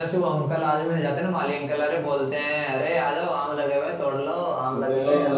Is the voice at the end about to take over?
No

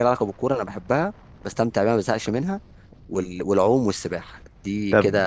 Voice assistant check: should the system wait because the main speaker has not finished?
No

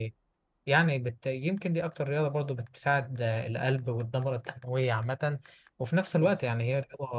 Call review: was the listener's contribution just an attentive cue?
Yes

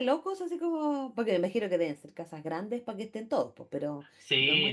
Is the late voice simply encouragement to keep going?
No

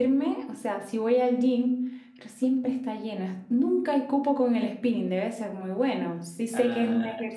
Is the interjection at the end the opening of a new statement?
No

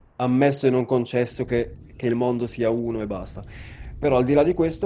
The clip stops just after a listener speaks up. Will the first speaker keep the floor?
Yes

